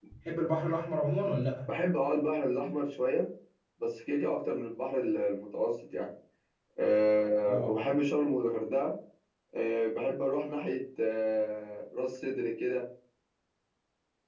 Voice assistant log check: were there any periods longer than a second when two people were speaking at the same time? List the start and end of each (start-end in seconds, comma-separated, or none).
none